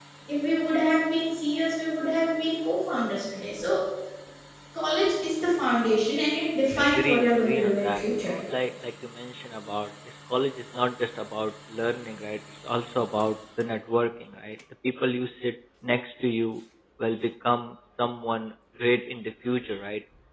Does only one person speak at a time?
No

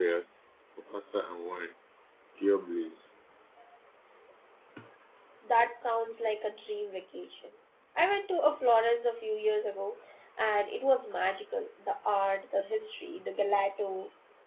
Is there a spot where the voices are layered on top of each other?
No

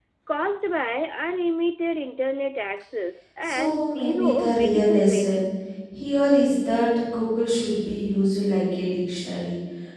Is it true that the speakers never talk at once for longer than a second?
No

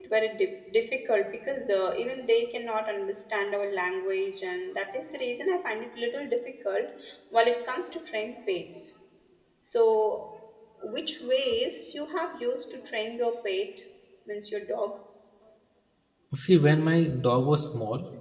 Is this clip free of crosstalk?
Yes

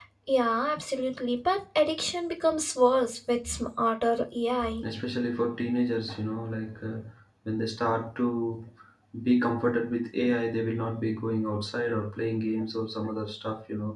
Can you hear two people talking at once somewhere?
No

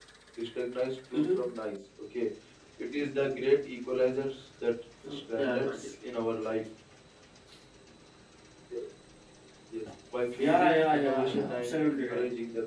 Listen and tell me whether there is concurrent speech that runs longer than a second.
Yes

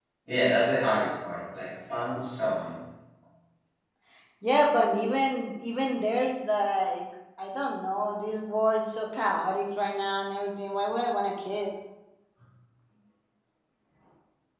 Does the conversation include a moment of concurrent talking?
No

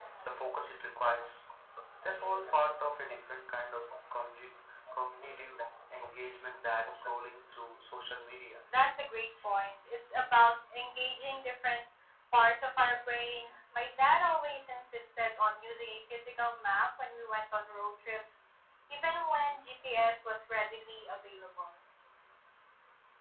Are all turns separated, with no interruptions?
Yes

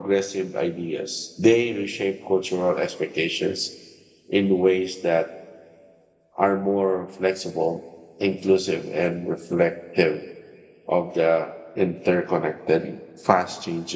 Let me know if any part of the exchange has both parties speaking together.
No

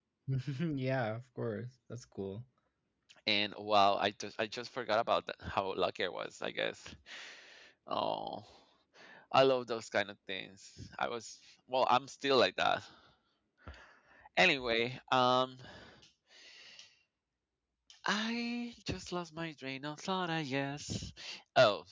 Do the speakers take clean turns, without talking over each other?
Yes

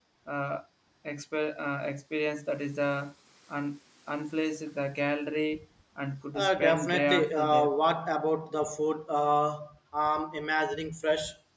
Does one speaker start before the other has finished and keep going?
Yes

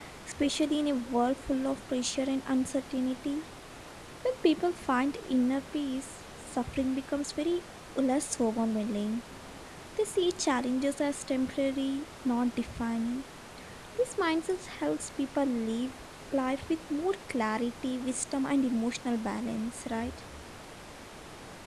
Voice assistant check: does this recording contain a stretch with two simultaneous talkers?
No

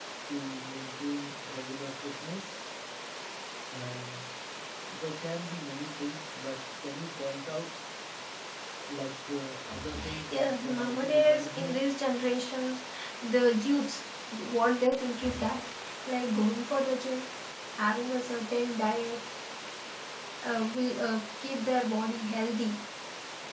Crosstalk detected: Yes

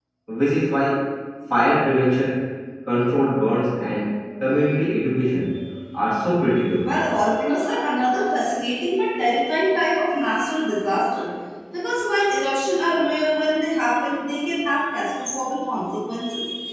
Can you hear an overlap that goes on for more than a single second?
No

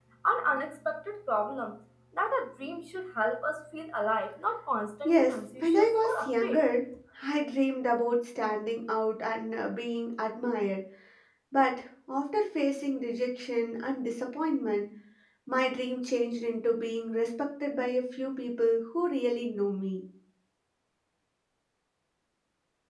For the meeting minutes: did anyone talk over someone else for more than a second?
Yes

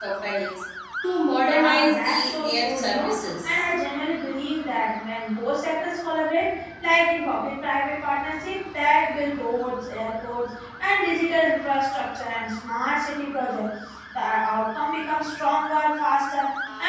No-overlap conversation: No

